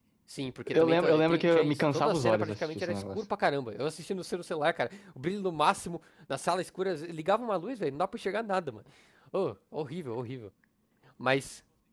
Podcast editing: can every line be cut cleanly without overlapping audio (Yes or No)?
No